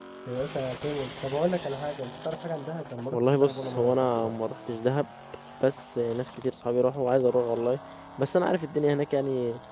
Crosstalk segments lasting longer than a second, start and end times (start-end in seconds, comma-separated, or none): 3.1-4.3